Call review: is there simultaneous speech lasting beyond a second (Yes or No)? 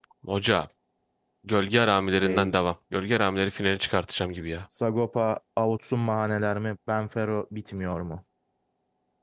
No